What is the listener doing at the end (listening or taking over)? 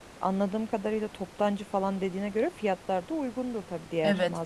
taking over